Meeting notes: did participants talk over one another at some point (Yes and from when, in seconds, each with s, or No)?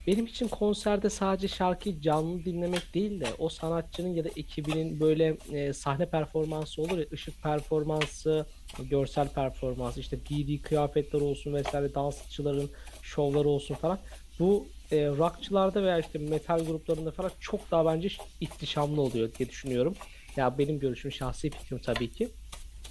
No